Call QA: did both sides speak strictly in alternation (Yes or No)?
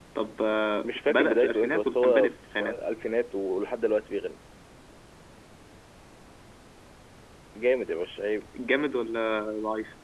No